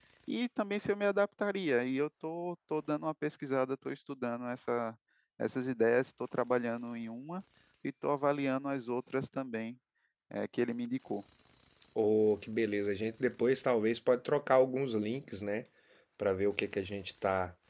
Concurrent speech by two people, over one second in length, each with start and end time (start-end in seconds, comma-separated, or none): none